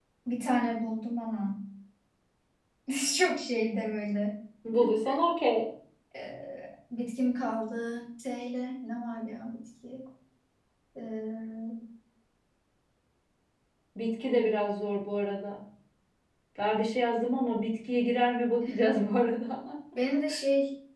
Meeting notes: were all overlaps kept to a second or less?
Yes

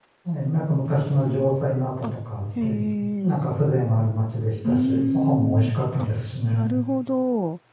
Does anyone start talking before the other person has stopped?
Yes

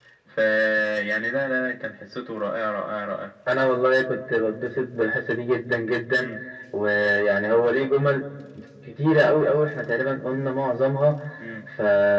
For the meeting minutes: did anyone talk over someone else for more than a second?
No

